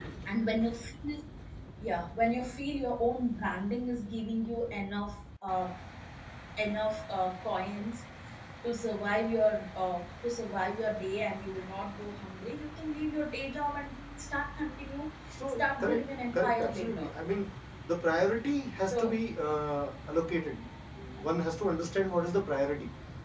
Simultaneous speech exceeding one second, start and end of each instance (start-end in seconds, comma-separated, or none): 15.6-17.1